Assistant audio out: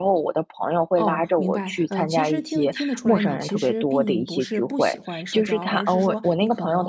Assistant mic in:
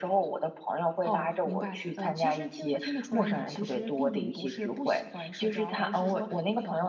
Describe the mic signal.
echo only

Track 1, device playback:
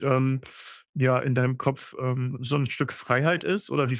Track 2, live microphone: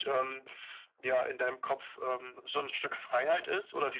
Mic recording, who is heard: echo only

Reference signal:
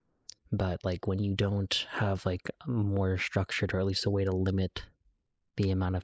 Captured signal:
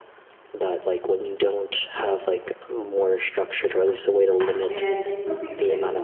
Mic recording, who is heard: both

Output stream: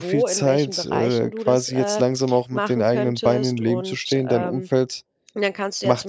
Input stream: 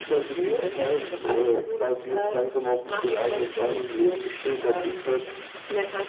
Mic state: echo only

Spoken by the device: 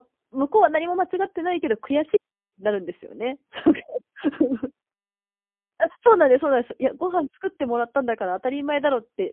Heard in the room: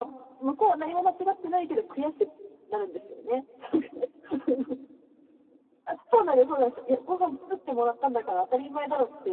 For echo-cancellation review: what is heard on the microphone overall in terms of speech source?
echo only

